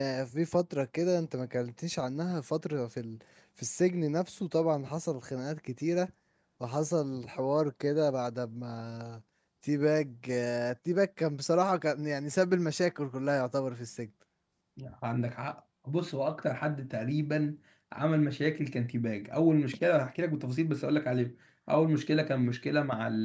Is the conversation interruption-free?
Yes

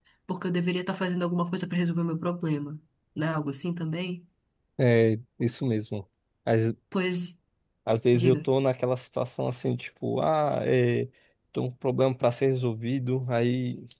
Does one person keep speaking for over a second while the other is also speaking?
No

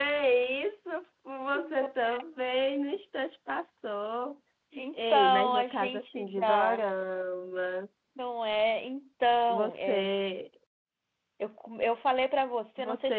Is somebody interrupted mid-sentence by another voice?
Yes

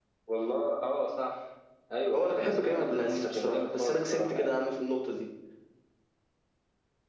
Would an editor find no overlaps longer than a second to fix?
No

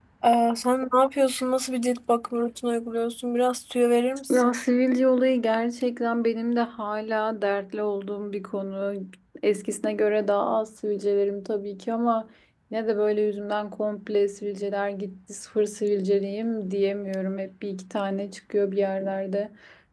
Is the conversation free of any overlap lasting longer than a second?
Yes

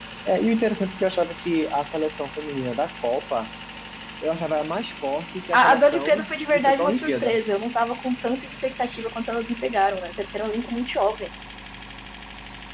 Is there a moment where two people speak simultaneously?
Yes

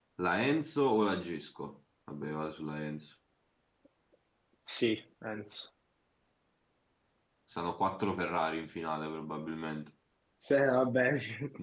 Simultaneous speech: No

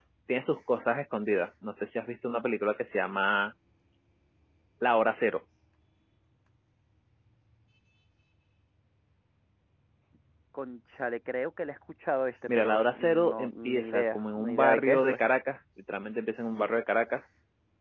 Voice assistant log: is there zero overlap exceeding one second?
No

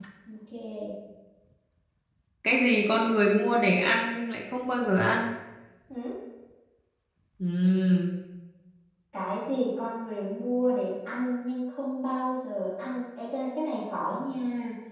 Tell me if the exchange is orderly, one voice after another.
Yes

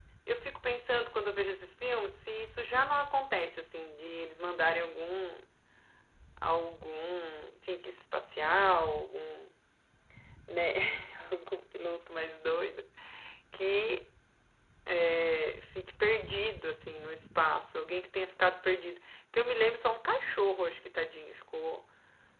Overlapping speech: No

